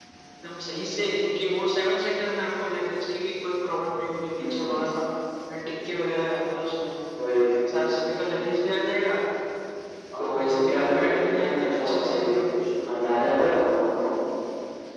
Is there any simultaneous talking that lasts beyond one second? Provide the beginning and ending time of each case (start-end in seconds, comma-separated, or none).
10.2-12.4